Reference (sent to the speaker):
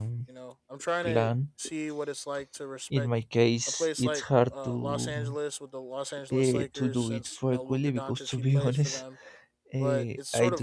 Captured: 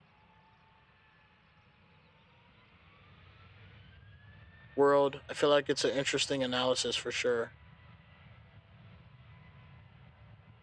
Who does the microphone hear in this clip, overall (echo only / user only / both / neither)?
user only